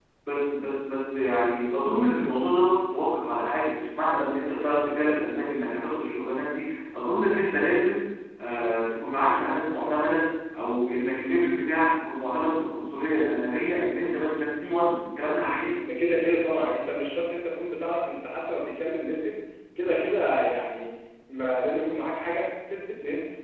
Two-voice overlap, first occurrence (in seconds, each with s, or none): none